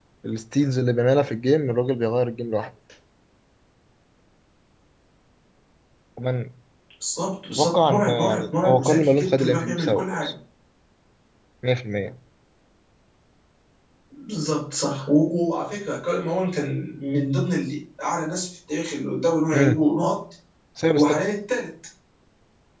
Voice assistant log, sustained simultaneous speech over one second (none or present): present